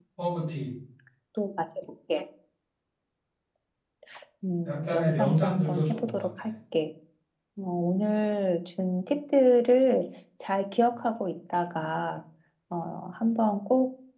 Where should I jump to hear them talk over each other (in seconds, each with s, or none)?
4.7 s